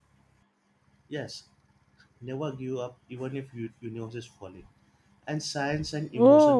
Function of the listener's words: taking over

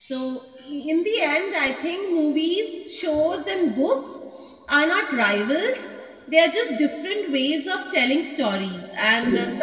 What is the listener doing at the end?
listening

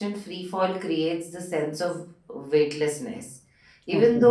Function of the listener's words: listening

